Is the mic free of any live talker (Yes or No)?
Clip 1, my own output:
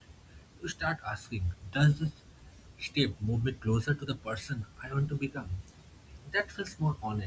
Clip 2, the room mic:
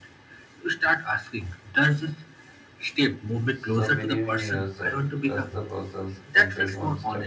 No